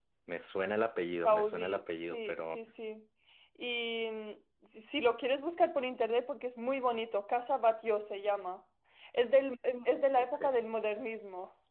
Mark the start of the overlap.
1 s

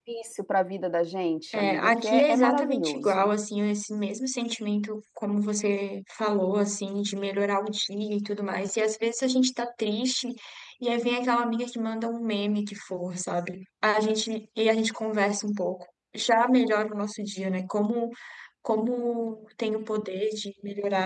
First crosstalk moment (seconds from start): 2 s

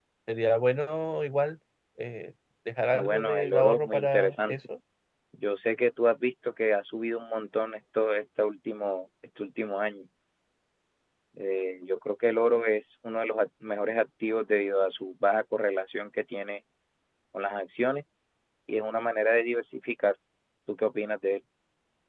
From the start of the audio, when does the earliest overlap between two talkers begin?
3 s

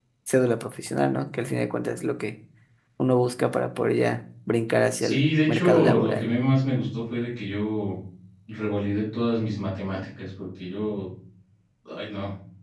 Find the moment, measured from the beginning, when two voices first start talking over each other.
5 s

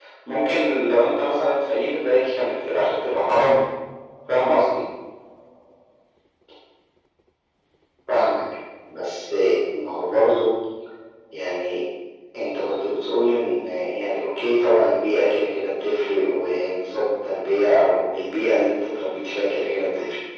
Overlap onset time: none

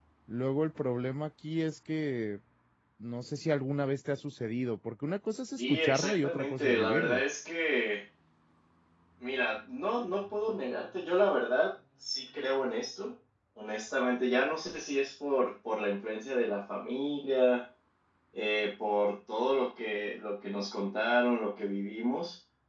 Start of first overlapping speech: 6 s

